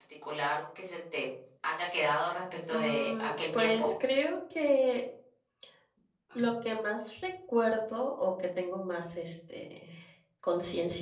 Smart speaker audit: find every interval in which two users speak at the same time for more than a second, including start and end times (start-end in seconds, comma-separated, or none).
2.7-3.9